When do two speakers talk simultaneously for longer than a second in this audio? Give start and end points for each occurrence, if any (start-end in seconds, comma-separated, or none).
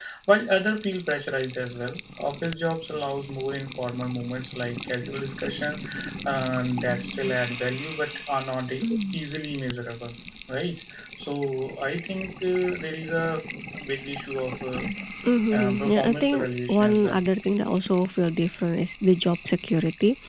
15.6-17.2